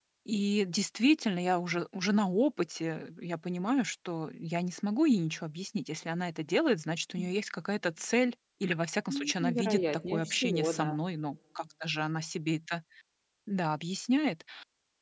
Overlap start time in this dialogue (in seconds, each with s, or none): 9.1 s